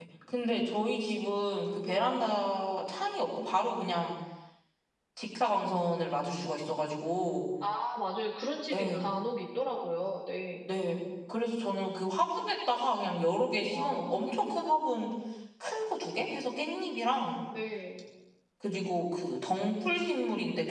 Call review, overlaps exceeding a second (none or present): none